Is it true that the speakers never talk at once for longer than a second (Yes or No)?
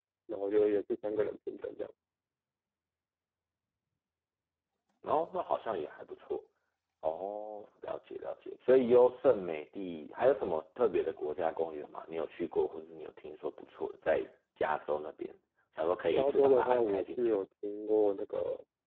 No